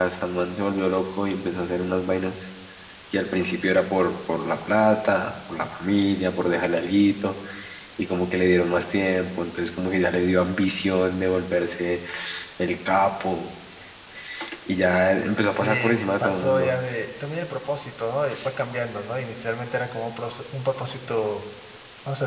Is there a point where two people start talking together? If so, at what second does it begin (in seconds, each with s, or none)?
15.5 s